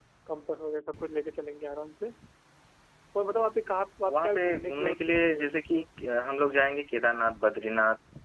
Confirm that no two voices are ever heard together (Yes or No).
No